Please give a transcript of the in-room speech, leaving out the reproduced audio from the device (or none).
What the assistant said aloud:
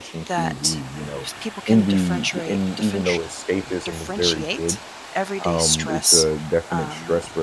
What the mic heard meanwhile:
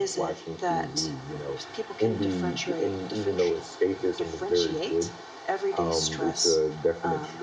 none